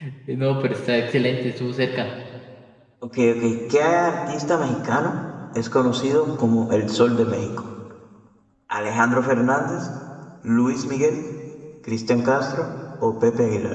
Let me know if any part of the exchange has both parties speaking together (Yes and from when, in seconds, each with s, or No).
No